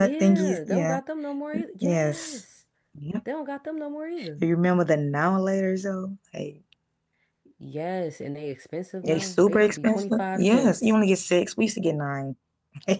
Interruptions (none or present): present